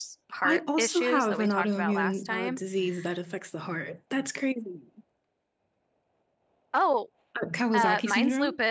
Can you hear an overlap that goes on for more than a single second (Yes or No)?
Yes